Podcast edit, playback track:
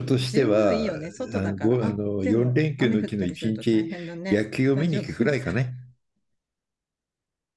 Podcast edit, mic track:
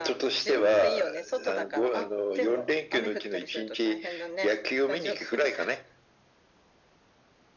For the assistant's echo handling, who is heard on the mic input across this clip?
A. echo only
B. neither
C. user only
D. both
A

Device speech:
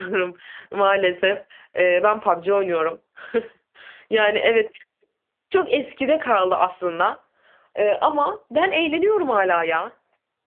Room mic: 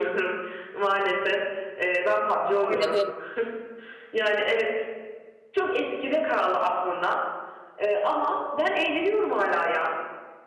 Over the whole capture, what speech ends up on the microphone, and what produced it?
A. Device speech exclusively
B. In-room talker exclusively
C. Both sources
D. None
C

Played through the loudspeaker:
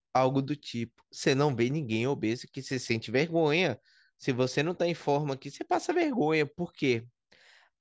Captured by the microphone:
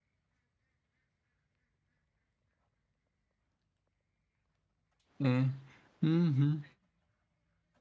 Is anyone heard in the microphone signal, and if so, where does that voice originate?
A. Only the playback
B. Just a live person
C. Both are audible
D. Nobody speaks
B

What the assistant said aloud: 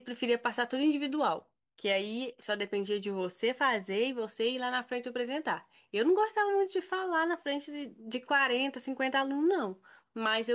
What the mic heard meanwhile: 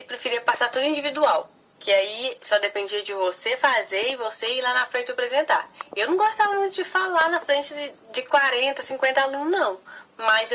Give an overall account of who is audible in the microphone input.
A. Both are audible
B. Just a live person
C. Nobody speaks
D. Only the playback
D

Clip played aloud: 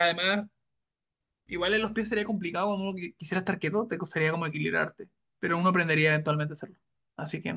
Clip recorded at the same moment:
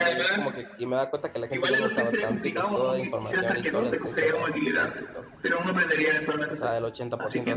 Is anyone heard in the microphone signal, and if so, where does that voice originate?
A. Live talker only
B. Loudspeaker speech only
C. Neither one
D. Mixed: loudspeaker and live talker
D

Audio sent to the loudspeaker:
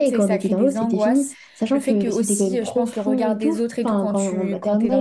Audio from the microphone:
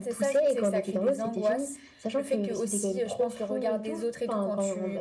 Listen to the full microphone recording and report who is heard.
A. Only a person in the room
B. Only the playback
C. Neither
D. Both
B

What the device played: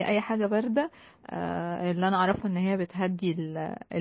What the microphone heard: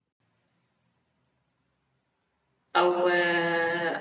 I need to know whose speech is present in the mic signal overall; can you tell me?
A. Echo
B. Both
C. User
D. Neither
C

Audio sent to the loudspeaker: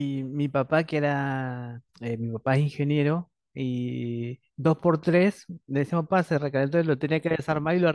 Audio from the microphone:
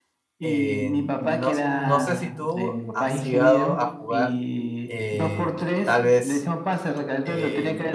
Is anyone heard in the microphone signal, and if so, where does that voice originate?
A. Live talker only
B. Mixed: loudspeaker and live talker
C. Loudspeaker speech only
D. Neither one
B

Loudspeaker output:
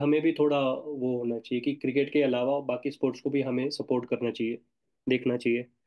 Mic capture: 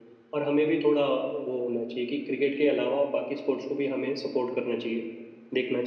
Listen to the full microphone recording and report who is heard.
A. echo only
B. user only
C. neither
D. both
A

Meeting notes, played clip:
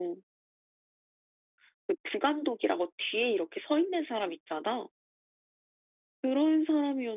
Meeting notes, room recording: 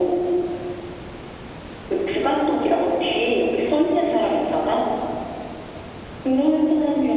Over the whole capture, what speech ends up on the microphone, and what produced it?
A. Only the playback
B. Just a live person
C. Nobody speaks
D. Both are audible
A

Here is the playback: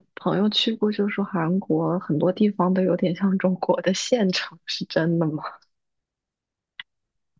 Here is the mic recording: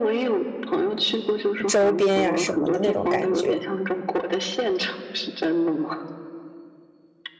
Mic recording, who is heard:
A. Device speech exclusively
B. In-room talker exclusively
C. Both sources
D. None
C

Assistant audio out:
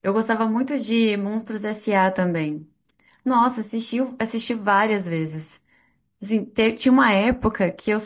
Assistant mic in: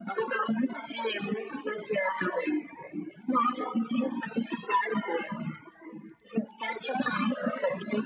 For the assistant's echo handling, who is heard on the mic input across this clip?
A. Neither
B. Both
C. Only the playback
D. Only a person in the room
C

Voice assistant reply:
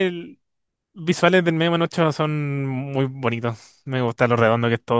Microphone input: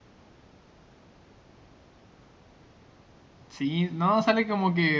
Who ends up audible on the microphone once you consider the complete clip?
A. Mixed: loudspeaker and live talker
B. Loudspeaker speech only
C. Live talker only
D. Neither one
C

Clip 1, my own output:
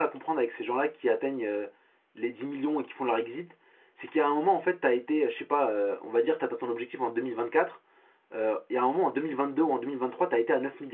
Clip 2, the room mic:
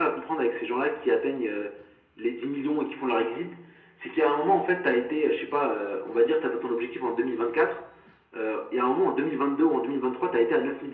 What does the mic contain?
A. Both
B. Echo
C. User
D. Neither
B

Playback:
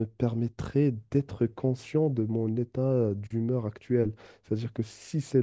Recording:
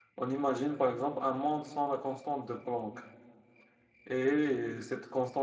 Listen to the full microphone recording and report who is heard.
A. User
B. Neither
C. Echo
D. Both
A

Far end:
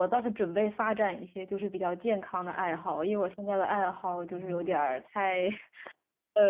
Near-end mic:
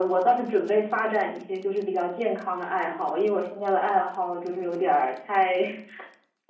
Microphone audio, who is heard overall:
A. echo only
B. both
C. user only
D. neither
A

